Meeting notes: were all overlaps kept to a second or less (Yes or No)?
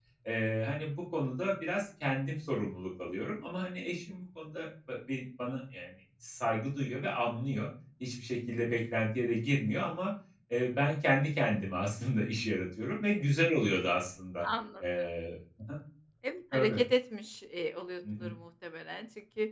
Yes